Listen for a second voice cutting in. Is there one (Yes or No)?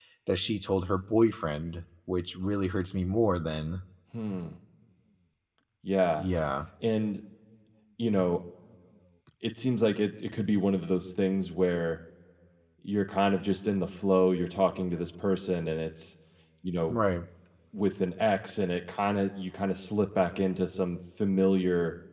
No